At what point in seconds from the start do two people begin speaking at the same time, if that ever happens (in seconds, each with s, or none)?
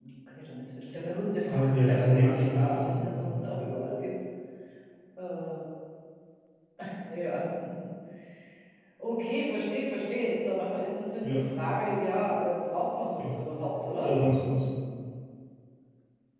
1.5 s